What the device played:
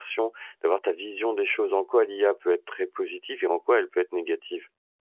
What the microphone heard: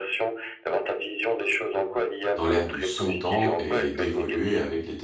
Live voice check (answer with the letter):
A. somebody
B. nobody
A